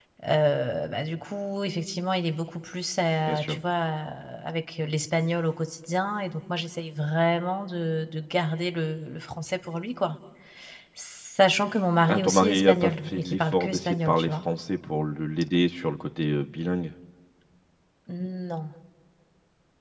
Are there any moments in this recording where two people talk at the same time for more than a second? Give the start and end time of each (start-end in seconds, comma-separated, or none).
12.1-14.4